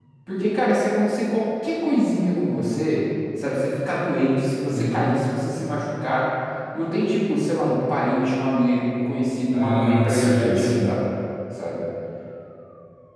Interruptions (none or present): present